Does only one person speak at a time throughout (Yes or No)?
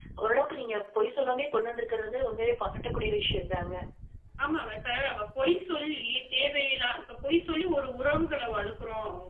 Yes